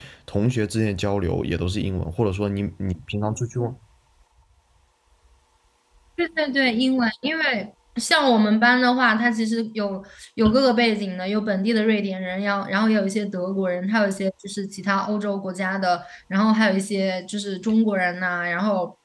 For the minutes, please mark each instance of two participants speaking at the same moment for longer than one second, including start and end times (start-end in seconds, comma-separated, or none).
none